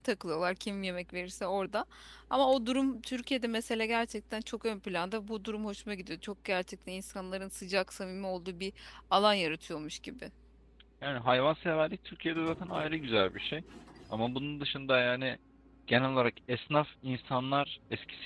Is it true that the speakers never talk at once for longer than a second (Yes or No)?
Yes